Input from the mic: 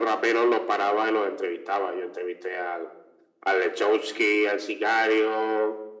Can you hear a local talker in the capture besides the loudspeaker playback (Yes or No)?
No